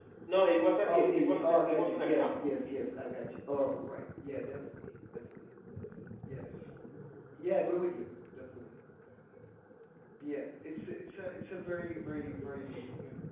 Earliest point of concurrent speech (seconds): 1 s

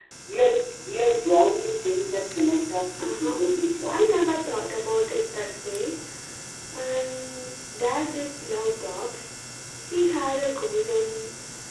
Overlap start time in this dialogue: 3 s

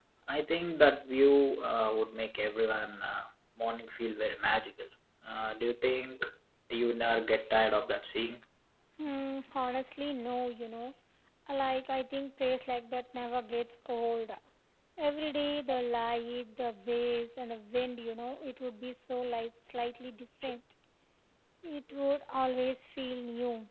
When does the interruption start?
none

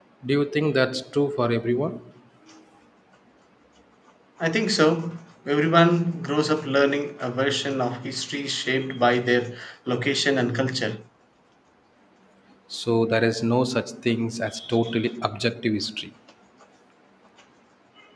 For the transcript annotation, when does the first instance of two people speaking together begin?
none

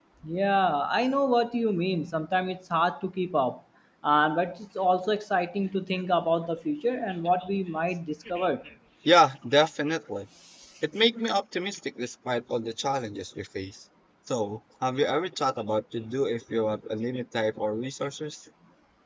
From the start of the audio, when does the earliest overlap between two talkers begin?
none

